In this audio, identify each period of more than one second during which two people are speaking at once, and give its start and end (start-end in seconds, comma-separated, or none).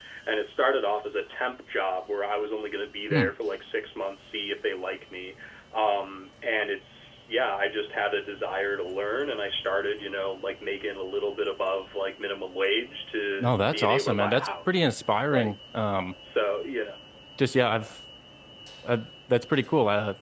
13.4-14.9